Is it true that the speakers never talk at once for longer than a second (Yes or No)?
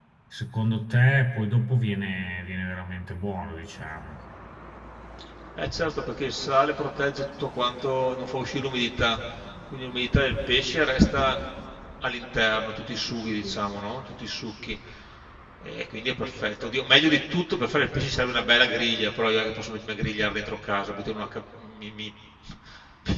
Yes